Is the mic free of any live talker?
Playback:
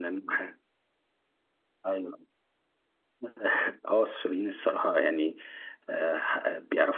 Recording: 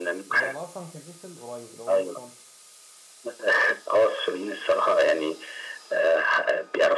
No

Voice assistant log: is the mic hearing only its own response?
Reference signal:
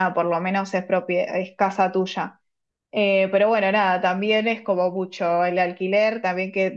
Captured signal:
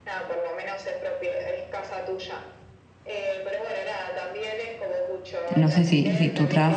No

